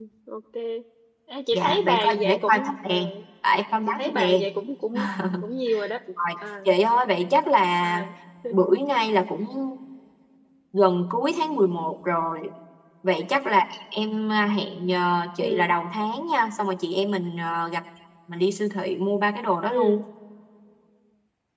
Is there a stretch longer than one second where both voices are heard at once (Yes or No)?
Yes